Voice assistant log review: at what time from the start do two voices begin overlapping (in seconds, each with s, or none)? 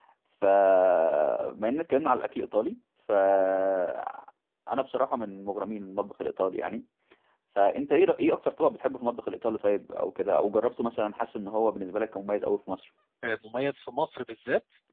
none